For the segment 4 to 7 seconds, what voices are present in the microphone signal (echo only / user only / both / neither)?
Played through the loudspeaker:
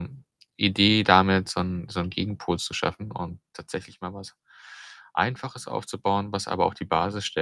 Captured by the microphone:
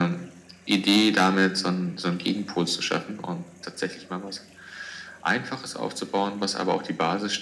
echo only